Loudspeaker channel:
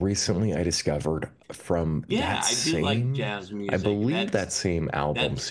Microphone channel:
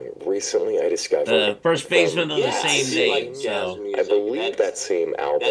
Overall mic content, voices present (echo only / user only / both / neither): both